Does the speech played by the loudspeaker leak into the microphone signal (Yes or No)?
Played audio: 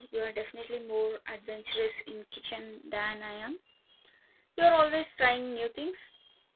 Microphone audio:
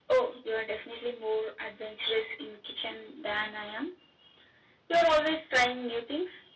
Yes